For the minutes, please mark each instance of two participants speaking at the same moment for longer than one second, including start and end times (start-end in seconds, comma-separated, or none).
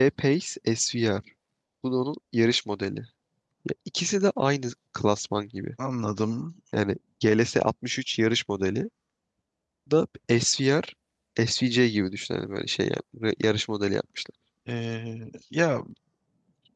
none